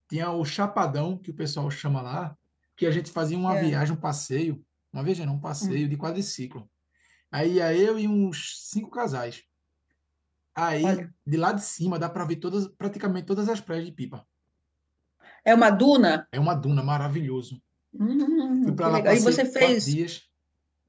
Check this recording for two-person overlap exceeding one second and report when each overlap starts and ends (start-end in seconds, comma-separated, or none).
18.7-19.9